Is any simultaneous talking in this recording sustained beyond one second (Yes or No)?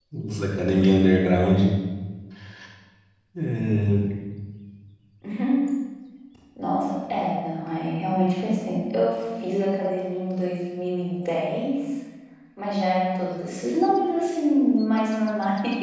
No